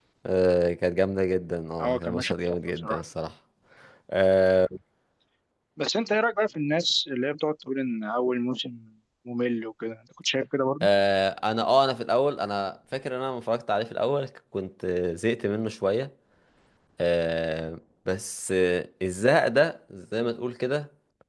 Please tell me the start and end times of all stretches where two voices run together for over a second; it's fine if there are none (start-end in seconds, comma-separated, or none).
1.8-3.0